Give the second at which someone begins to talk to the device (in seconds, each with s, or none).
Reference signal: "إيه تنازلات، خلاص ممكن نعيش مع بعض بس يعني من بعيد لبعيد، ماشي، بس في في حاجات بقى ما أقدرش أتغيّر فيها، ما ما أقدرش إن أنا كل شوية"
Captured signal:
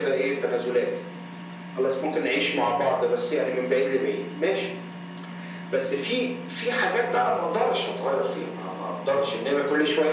none